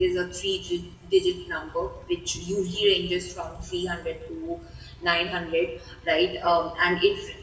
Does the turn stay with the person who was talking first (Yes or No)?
Yes